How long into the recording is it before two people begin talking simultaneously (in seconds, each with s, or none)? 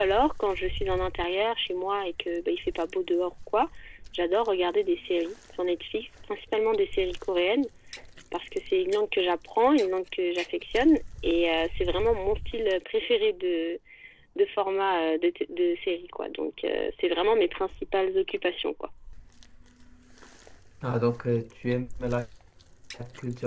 none